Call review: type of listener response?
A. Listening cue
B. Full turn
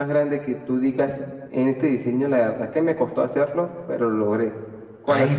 B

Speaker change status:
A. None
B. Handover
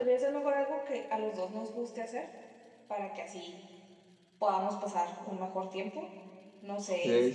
A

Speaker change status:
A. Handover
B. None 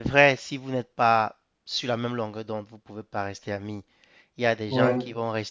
B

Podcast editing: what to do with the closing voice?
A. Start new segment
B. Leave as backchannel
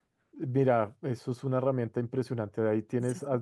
B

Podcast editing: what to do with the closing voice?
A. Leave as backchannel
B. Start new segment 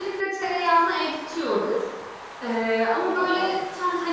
A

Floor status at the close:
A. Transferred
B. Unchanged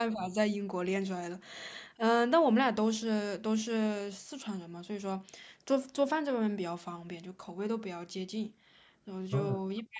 B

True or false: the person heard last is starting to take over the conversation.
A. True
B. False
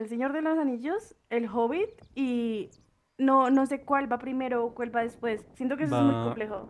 A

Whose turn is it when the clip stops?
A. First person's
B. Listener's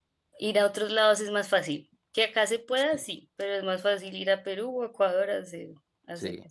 B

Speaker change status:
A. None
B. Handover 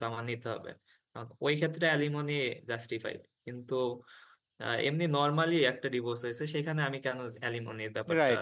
B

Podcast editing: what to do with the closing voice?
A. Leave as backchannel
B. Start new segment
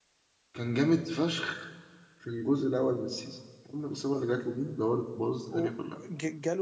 B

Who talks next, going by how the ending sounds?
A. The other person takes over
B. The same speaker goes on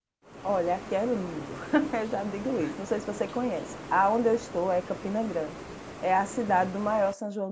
B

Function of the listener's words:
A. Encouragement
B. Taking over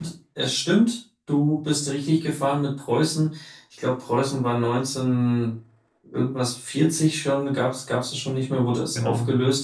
A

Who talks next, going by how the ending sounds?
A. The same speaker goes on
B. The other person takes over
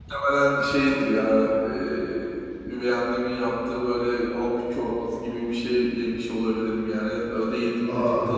A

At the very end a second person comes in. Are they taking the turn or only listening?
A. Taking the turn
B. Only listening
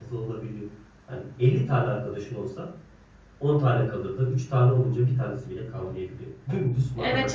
A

